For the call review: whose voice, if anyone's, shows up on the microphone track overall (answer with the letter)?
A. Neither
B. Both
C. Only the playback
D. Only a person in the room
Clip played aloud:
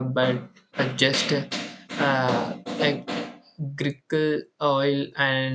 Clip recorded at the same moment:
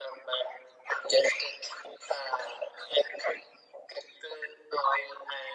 C